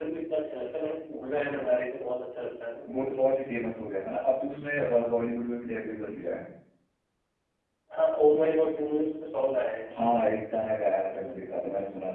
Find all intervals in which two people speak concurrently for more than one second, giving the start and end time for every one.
none

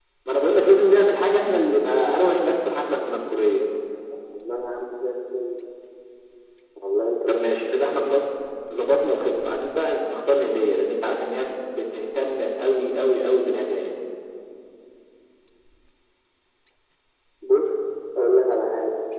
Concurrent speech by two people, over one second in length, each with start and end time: none

